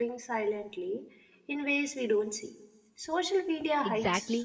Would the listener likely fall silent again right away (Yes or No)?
No